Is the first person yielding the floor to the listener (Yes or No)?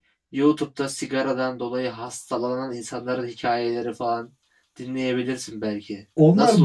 Yes